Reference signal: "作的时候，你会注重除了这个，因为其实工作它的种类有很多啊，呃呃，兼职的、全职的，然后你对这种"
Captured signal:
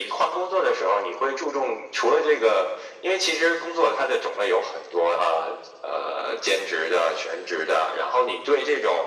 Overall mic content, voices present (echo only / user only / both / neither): echo only